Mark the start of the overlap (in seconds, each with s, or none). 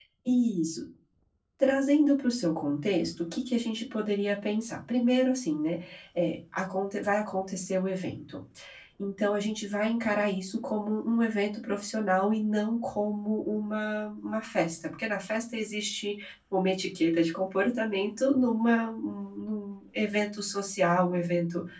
none